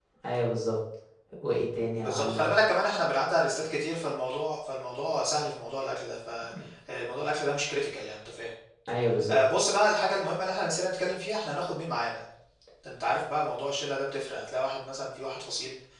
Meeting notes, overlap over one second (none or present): none